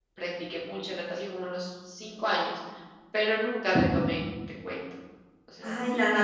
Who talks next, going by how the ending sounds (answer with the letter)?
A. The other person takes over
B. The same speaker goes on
A